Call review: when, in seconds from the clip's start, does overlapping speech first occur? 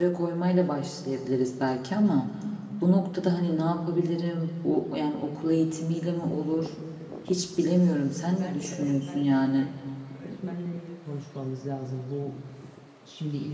8 s

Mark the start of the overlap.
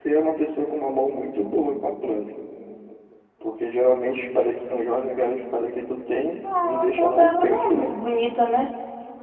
6 s

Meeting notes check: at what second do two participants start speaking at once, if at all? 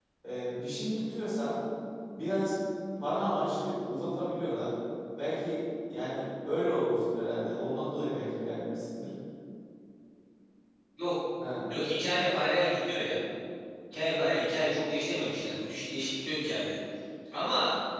none

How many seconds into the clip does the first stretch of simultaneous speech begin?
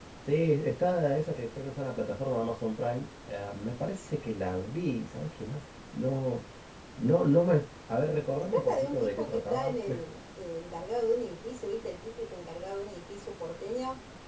8 s

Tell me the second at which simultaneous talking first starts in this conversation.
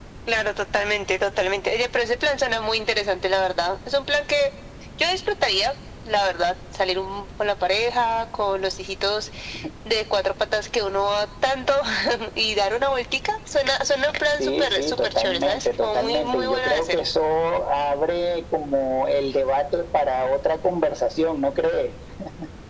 14 s

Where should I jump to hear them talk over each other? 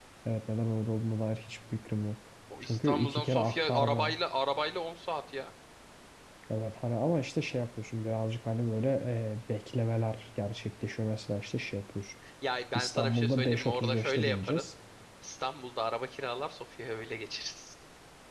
3 s

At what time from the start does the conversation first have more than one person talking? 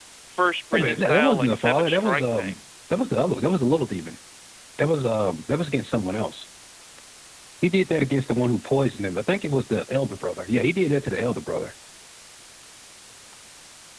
1 s

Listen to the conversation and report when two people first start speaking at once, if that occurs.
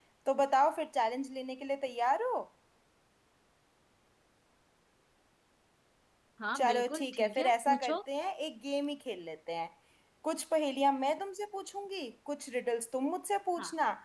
7 s

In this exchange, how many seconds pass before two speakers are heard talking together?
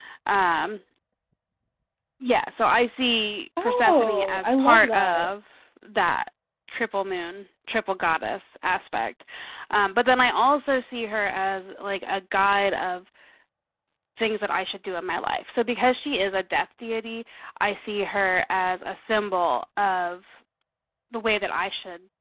4 s

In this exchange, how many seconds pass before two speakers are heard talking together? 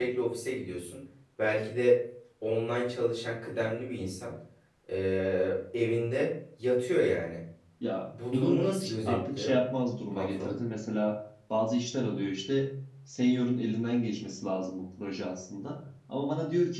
8 s

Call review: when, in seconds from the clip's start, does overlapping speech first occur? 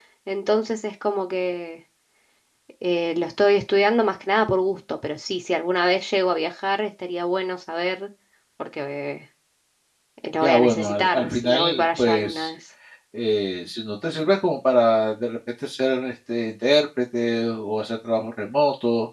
10 s

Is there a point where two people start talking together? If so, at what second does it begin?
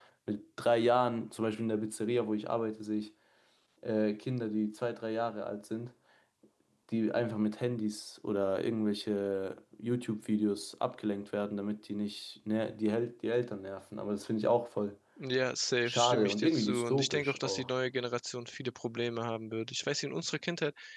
16 s

